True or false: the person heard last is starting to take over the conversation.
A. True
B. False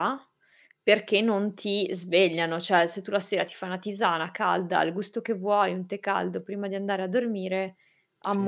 B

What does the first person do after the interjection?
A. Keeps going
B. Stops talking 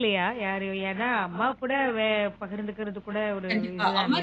B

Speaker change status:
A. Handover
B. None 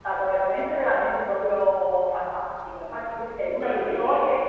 B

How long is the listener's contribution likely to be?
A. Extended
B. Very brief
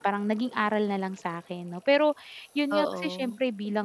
B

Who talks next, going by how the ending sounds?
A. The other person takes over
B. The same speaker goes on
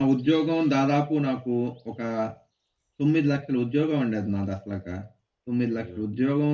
B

